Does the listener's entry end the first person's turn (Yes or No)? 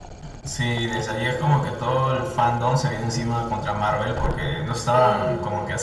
No